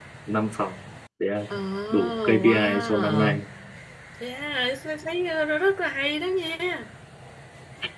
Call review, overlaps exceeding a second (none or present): present